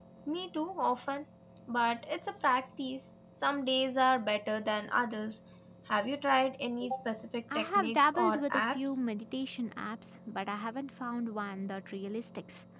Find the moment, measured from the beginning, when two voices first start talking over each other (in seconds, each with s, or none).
7.5 s